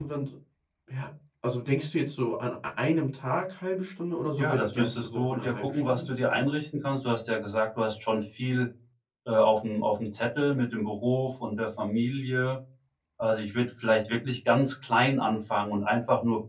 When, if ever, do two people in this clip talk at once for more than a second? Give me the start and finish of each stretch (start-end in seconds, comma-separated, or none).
4.4-6.5